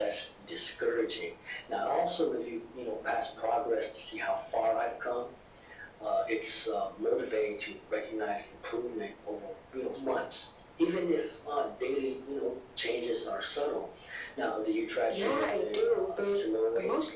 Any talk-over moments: Yes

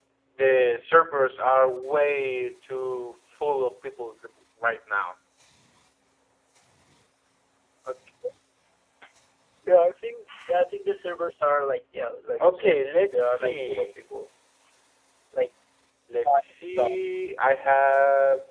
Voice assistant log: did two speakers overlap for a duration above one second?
Yes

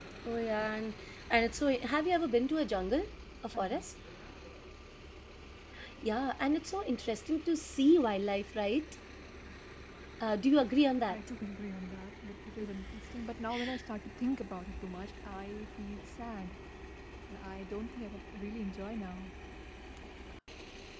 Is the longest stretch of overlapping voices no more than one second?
Yes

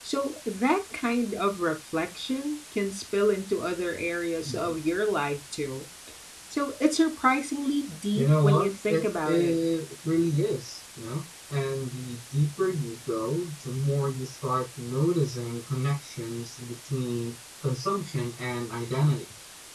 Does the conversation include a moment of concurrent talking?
Yes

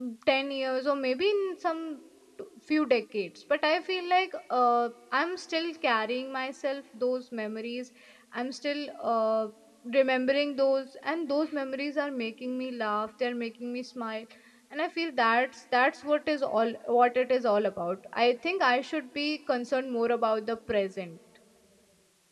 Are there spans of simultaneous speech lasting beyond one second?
No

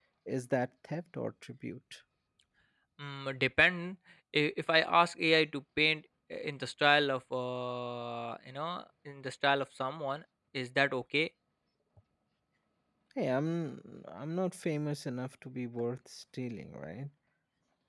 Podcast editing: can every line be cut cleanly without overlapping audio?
Yes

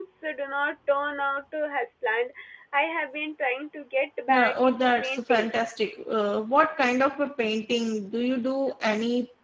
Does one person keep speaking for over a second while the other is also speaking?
Yes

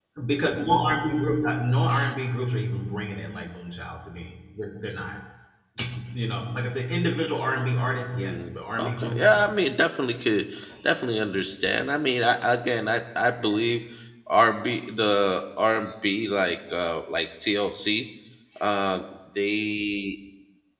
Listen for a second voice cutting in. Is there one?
Yes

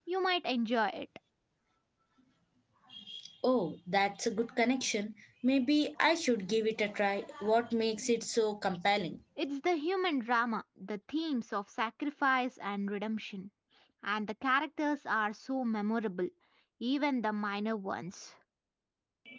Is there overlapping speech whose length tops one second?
No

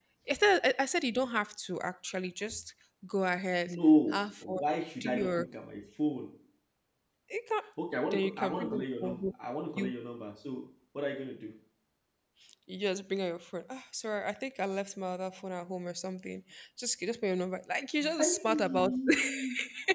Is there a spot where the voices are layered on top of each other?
Yes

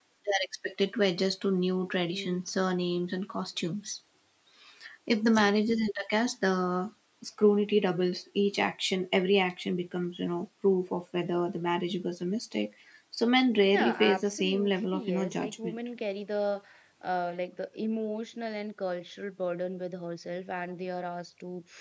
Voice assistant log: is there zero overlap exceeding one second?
No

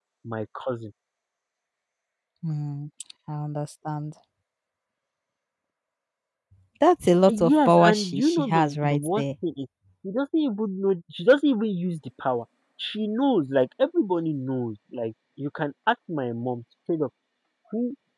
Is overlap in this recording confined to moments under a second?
No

